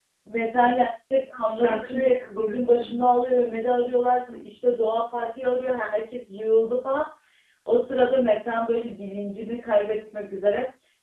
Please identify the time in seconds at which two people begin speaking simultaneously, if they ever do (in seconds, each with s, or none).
1.4 s